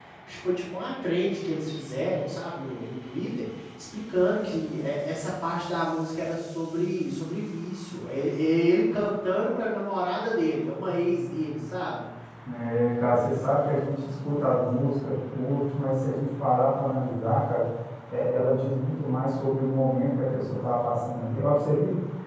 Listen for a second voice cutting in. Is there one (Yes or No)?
No